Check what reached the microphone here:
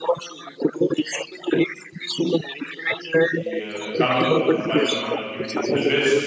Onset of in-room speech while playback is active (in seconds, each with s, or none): 3.3 s